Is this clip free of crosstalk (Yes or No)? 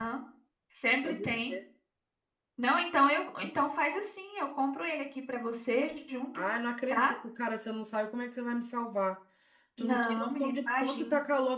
No